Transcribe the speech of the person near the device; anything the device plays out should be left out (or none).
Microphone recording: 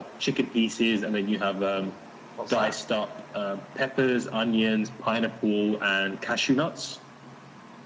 Ooh, what's that?